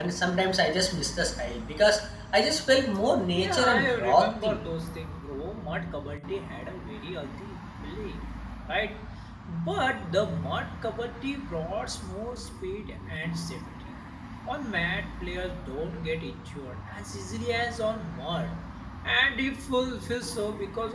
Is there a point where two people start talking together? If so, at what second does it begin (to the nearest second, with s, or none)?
3 s